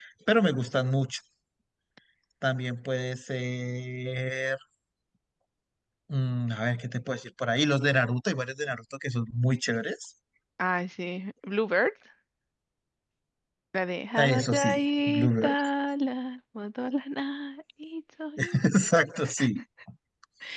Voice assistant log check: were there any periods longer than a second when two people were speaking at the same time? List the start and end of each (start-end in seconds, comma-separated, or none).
14.2-15.6